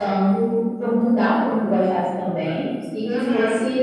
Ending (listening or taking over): listening